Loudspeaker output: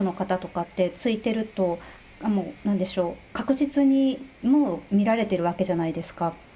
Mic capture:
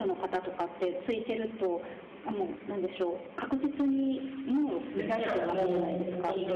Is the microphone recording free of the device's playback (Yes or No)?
No